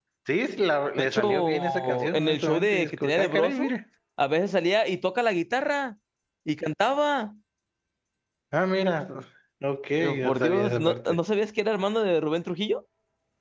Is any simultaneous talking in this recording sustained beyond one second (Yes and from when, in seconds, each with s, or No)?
Yes, from 1.0 s